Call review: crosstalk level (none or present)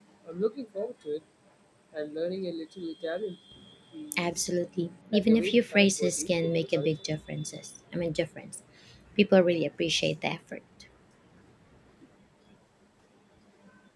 present